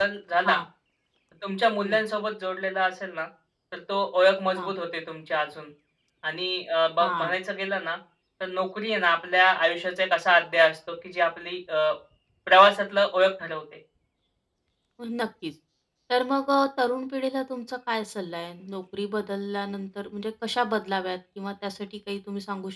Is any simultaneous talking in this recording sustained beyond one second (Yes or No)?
No